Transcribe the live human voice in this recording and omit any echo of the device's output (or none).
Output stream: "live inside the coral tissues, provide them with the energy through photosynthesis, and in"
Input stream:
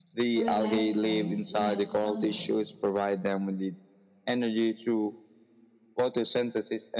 where life thrives without sunlight,